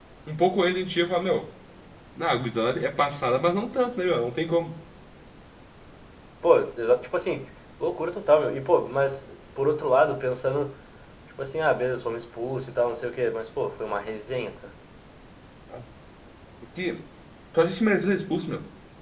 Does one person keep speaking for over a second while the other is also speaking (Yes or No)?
No